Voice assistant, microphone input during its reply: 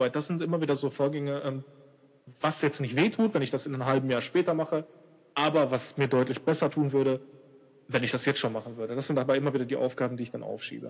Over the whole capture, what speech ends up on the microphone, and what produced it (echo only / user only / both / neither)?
echo only